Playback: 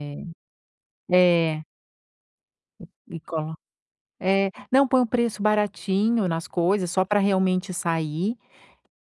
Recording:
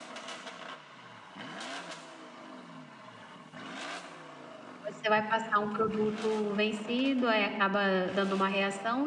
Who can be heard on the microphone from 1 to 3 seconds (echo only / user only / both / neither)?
neither